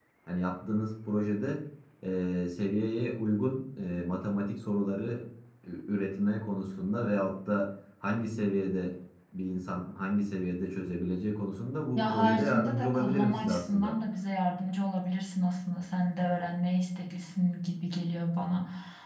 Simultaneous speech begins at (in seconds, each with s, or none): 11.9 s